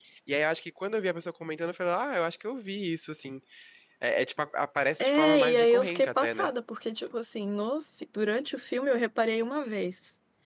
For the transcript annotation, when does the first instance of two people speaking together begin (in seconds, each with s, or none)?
5.0 s